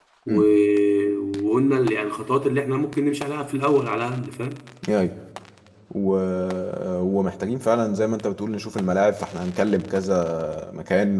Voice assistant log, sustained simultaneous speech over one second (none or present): none